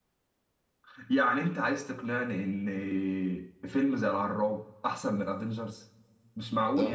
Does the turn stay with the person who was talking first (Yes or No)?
No